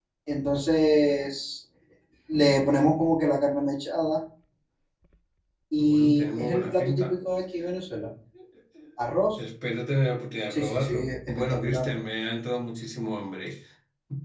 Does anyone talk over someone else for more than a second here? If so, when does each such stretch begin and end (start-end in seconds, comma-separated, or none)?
5.8-7.1, 10.5-11.8